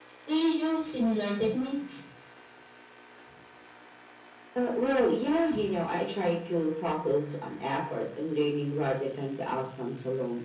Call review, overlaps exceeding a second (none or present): none